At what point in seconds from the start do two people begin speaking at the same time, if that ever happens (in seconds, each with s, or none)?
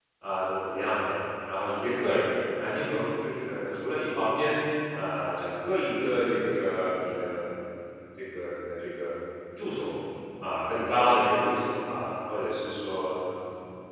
none